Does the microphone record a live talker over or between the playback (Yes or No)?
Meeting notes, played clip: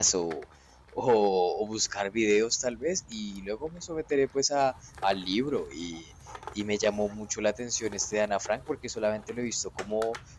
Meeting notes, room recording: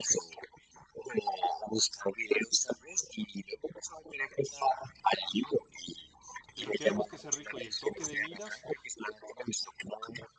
Yes